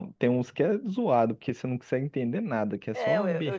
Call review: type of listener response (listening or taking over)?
taking over